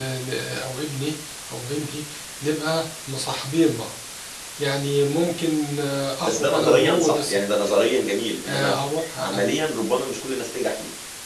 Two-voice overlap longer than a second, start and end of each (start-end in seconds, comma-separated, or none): 6.2-7.7